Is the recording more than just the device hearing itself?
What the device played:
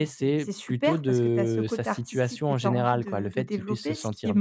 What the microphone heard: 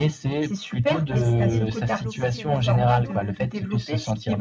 Yes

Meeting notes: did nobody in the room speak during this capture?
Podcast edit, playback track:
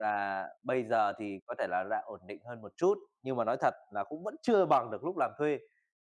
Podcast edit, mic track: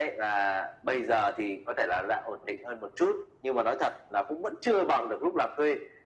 Yes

